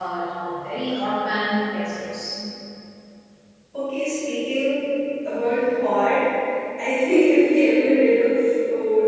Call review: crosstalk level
none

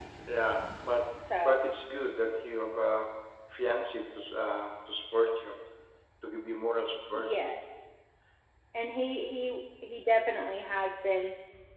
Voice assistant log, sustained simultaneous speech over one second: none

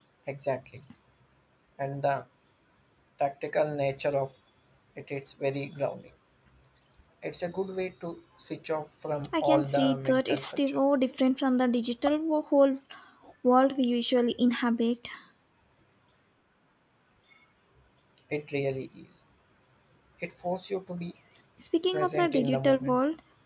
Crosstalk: present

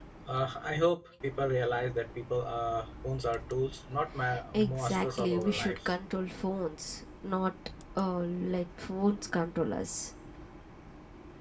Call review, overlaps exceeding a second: present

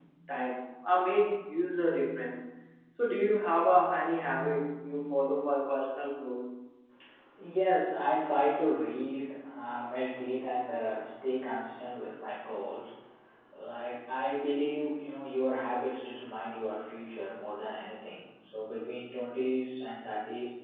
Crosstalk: none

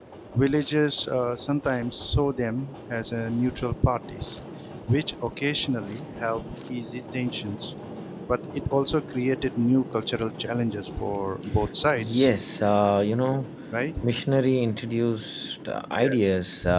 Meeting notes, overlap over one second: none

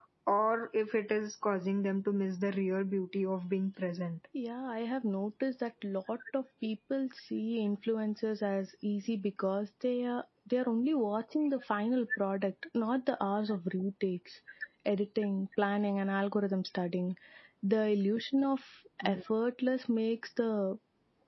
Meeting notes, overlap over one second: none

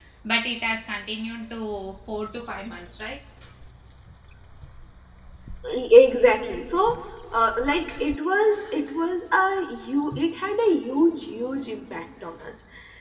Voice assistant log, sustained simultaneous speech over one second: none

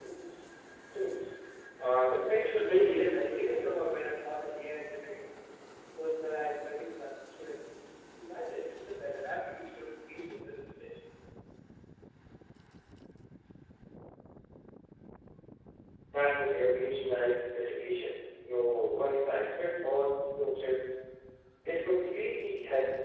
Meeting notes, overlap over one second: present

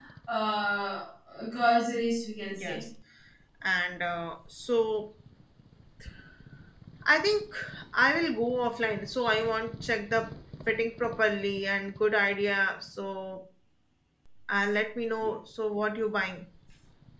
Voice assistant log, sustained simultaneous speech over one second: none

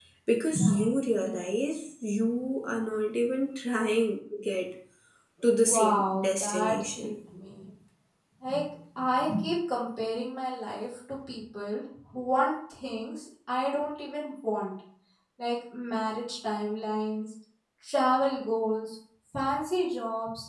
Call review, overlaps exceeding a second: present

